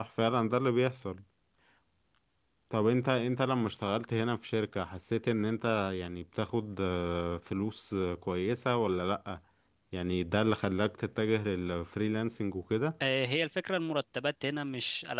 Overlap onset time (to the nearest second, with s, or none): none